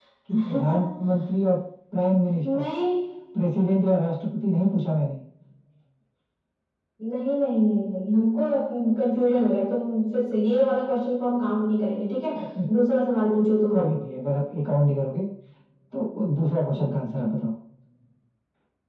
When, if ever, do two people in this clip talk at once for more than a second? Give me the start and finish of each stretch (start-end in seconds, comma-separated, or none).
none